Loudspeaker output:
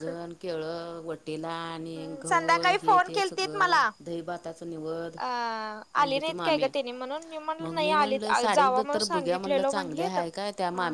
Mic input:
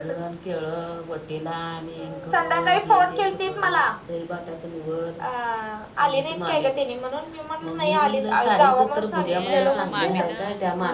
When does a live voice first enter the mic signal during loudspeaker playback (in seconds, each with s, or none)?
9.2 s